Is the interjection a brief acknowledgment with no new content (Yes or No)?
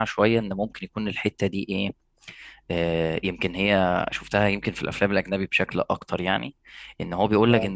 Yes